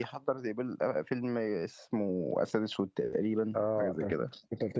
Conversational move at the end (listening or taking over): taking over